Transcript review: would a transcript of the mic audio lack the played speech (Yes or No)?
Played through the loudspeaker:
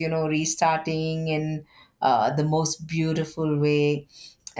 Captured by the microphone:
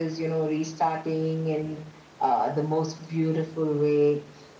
No